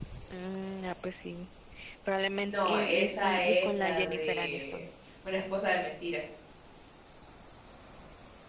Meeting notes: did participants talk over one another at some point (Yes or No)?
Yes